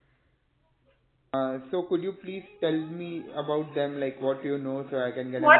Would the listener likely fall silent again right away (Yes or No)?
No